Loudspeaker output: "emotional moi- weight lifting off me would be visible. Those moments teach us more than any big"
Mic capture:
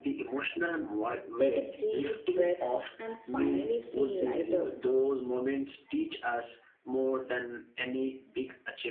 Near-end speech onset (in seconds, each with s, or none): 1.4 s